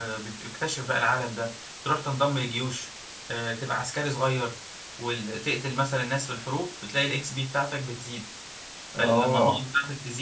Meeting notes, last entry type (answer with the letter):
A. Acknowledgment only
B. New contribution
A